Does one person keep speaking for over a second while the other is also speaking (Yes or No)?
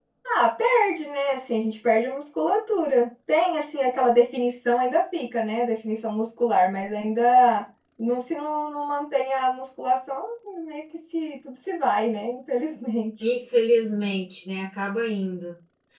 No